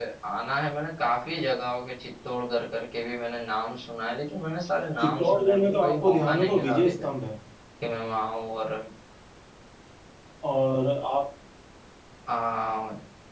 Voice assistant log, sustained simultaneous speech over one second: present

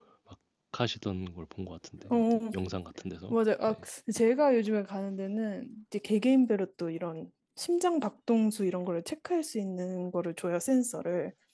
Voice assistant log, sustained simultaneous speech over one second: none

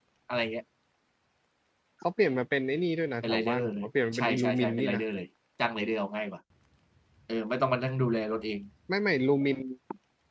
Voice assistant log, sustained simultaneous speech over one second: present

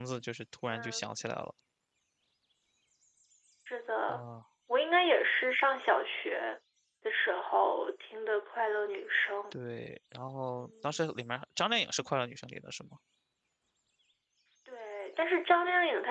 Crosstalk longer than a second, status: none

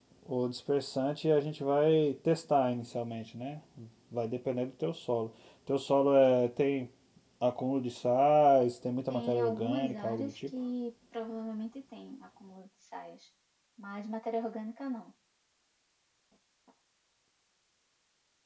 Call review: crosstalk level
present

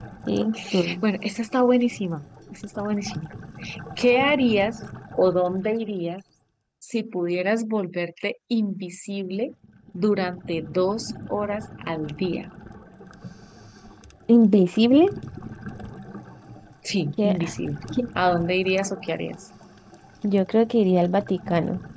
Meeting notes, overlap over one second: none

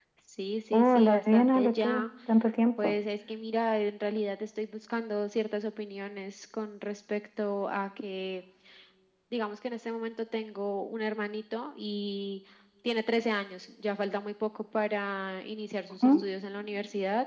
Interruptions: present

